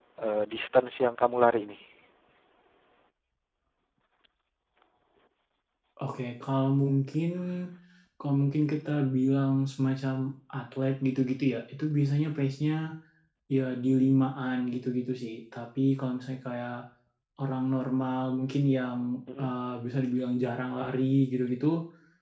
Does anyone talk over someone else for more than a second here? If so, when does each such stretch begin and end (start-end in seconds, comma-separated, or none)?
none